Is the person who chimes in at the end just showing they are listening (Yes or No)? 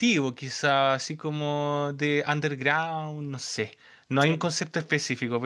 Yes